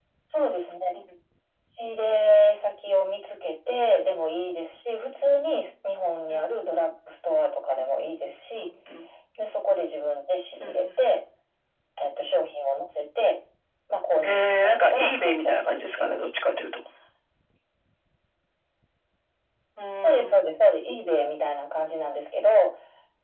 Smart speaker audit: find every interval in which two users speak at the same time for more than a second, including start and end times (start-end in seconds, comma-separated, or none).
14.2-16.1